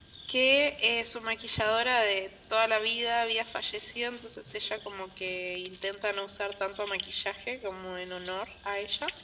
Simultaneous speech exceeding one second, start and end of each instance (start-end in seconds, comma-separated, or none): none